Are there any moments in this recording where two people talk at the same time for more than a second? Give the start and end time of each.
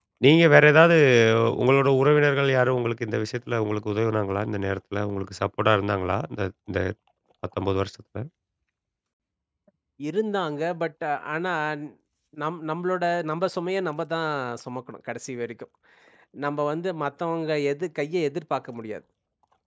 none

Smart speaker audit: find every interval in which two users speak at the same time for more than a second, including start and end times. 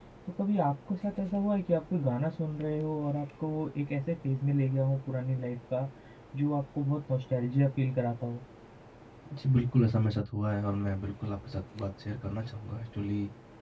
none

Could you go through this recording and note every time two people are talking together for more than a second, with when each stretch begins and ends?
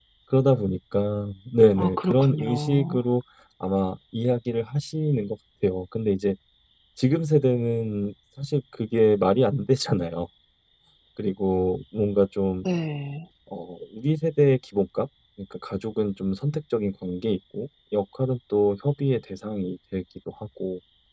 1.8-3.0

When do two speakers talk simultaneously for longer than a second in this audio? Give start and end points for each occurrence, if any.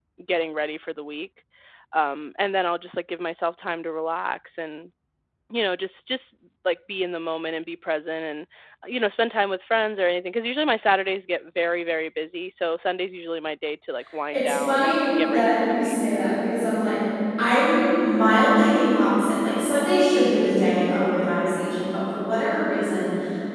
14.3-15.9

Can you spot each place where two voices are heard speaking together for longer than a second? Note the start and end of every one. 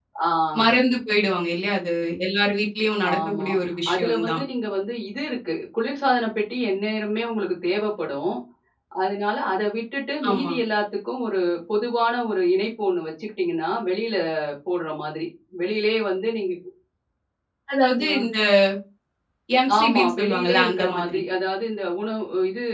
19.8-21.2

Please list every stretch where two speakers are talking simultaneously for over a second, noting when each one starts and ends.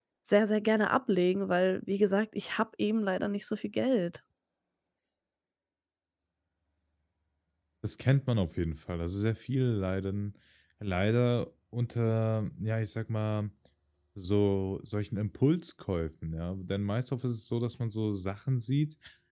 none

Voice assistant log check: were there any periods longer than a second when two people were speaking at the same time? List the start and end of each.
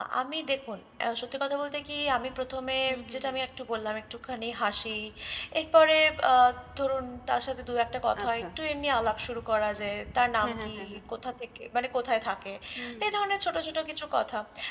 none

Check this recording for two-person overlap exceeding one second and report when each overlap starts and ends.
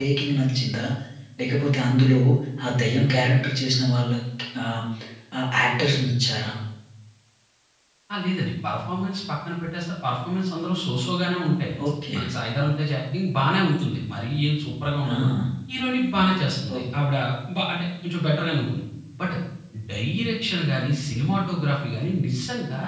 none

